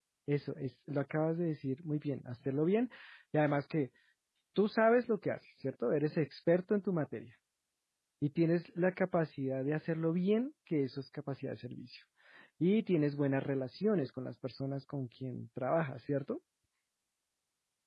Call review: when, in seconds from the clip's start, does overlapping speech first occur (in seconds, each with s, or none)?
none